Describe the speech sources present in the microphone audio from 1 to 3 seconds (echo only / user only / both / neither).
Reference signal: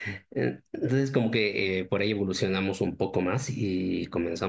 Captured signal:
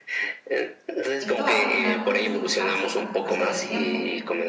both